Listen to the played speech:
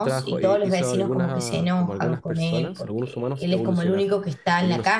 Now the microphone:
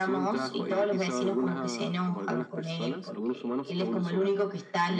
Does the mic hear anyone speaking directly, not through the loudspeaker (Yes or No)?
No